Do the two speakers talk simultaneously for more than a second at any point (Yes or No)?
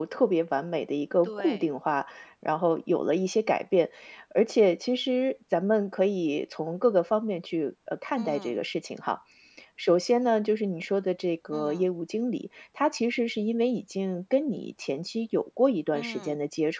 No